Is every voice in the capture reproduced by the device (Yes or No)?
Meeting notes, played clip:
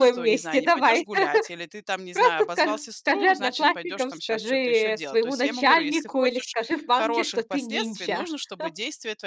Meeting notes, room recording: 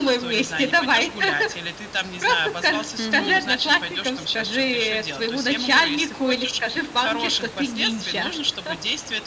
No